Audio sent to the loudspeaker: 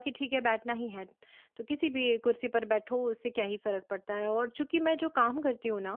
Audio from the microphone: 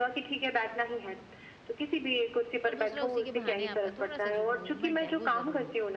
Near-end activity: present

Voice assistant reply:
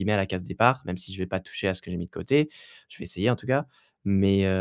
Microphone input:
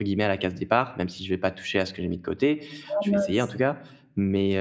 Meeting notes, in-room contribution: present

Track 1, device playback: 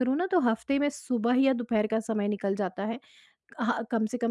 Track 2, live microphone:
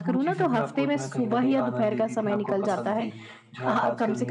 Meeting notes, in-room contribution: present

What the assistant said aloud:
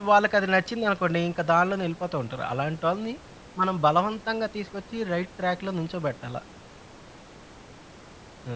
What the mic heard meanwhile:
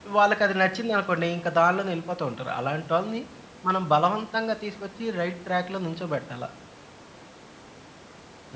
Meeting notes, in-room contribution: none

